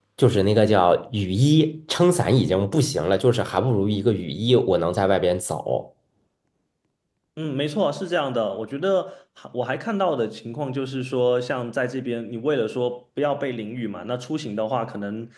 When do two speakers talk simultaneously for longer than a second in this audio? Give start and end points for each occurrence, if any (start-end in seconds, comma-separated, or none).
none